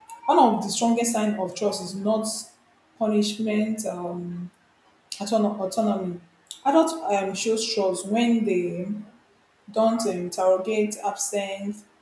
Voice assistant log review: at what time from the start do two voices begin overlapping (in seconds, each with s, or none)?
none